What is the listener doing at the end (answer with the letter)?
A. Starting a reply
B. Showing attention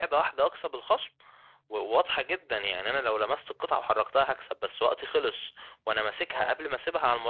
B